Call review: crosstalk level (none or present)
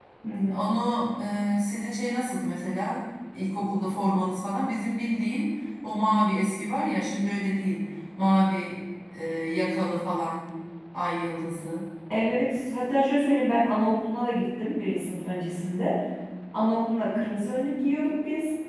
none